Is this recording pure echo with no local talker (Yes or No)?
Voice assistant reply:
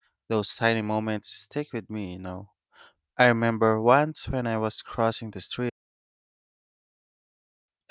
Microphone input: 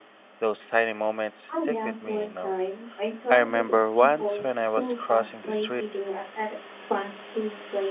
No